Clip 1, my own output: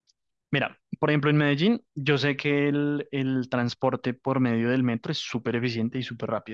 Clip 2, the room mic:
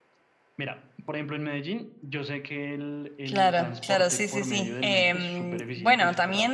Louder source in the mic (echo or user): user